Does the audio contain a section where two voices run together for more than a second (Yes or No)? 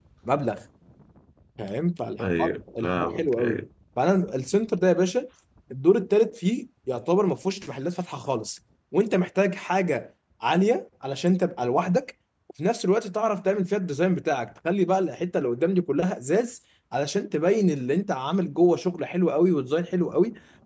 Yes